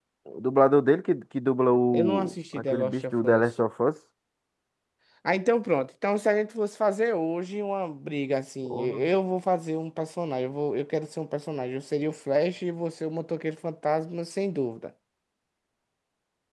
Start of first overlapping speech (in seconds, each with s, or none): 1.9 s